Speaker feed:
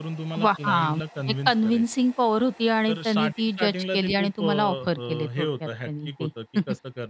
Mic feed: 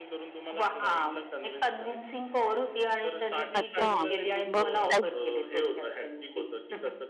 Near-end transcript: अच्छा! मग काय

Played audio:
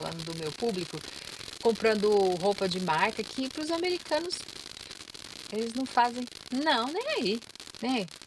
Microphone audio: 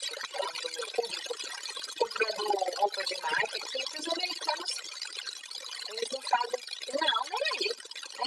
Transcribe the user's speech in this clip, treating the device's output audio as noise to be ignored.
none

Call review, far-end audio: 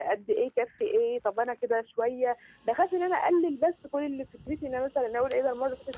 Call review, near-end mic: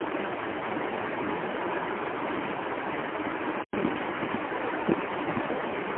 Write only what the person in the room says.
none

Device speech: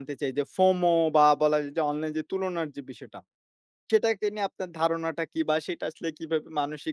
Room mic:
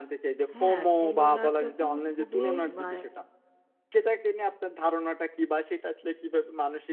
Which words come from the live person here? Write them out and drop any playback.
হ্যাঁ, তুলনাটা তো খুবই ব্যা

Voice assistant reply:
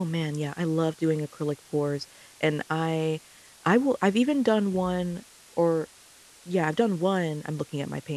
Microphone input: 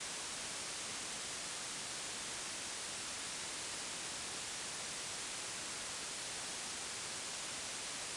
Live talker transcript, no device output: none

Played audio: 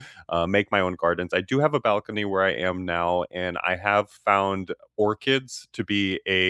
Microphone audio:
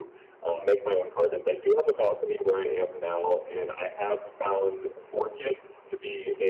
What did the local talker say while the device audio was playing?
none

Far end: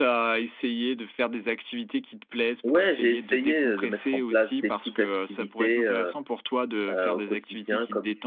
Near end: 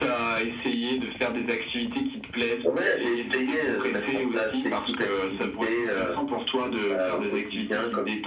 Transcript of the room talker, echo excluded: OK.

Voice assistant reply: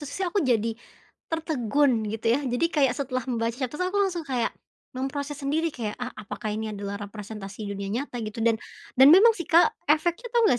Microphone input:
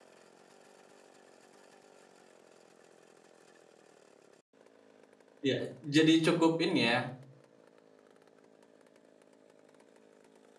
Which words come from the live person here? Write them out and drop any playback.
Iya, e jadi cukup ini ya,

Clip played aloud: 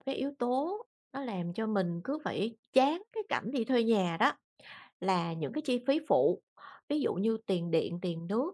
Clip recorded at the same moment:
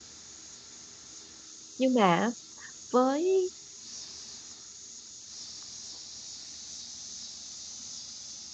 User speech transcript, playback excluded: Nhưng mà á, với

